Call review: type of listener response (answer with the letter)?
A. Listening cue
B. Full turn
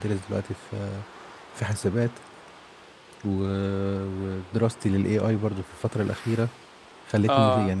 B